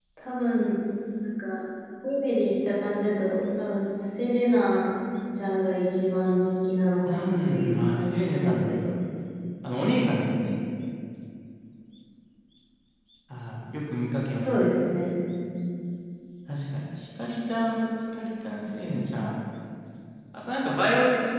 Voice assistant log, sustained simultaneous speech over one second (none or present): present